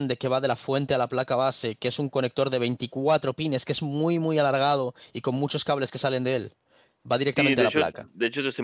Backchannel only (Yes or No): No